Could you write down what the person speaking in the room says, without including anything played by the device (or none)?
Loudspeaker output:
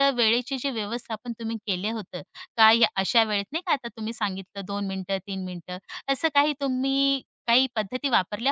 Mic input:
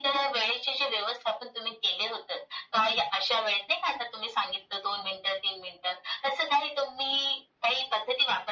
none